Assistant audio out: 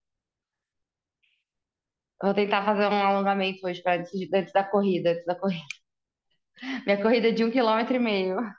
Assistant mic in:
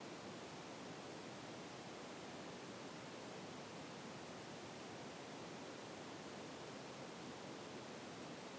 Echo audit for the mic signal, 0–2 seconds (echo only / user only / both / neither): neither